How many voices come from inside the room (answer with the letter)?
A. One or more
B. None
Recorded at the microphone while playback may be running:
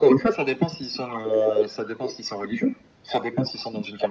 B